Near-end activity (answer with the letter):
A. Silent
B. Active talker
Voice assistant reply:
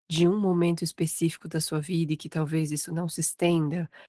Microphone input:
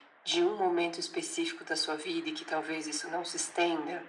A